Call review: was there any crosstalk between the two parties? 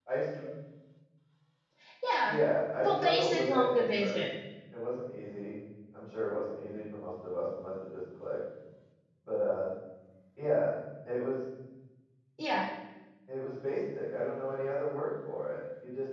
Yes, from 2.8 s

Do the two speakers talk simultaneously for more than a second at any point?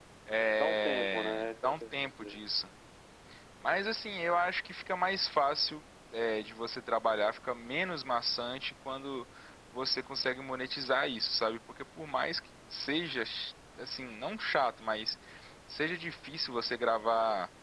Yes, from 0.5 s

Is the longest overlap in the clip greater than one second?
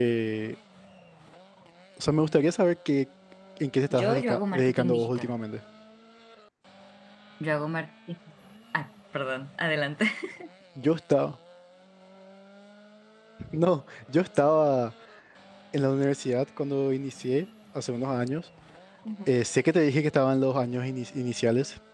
Yes, from 3.9 s

